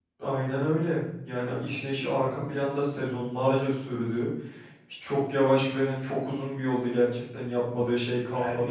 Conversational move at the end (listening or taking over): taking over